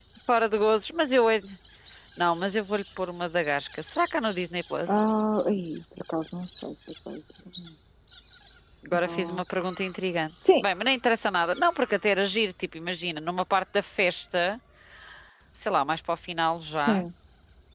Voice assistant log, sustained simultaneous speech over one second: none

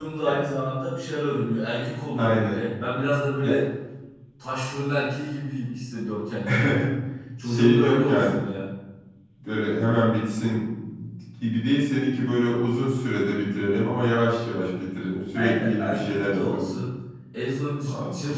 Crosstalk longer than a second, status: present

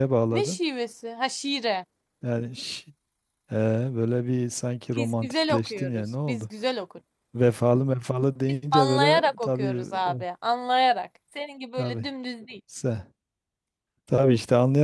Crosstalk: present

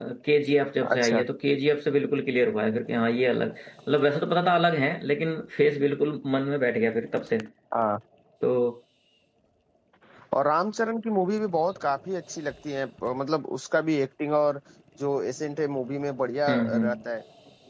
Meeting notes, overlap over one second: none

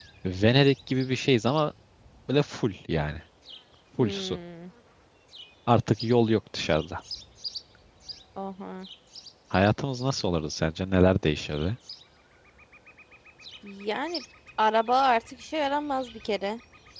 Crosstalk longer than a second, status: none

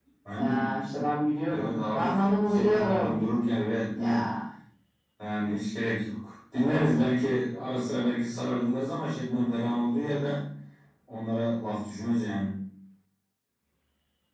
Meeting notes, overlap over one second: present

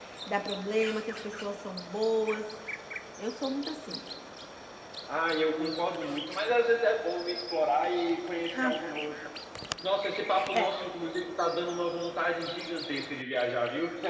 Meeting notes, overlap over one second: none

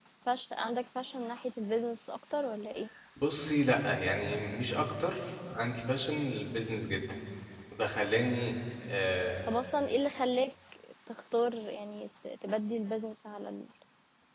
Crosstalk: none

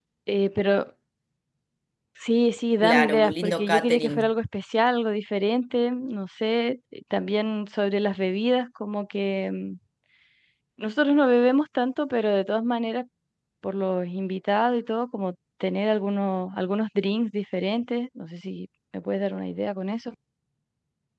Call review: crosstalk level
present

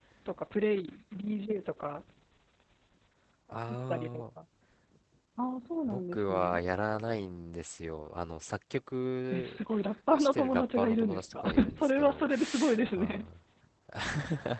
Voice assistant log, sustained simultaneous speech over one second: present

